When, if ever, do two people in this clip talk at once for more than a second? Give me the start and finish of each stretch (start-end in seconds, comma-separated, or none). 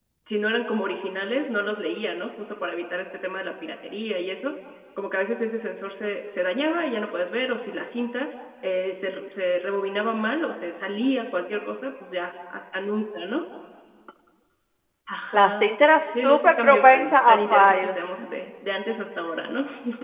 16.2-17.9